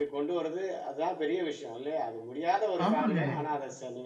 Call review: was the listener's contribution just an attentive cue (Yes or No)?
Yes